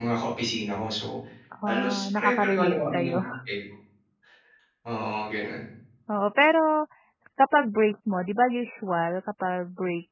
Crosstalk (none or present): present